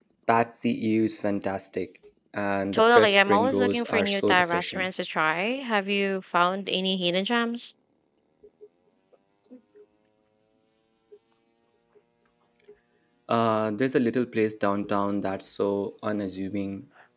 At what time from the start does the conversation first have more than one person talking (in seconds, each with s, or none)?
2.7 s